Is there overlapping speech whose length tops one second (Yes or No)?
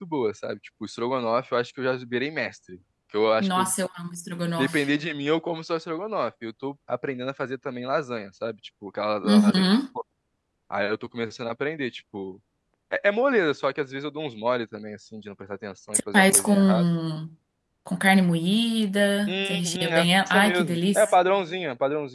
Yes